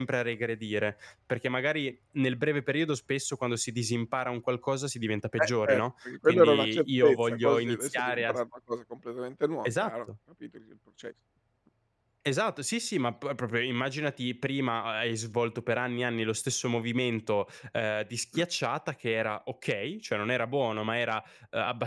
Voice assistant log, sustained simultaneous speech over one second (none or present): present